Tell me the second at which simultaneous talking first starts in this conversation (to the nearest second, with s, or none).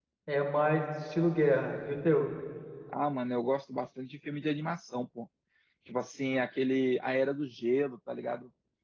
none